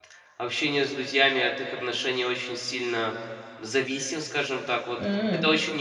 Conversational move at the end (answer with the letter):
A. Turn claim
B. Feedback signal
B